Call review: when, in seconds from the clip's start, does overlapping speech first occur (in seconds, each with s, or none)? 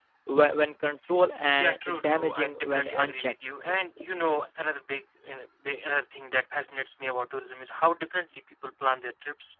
1.6 s